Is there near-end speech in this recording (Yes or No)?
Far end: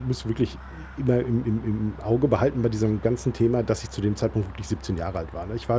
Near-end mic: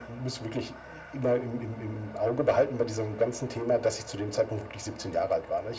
No